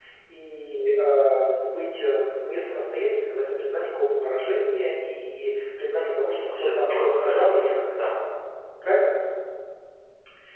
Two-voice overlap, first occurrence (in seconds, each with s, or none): 6.5 s